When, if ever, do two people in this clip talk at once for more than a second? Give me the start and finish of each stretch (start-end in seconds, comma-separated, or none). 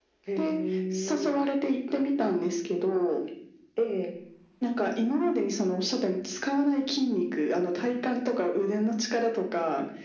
none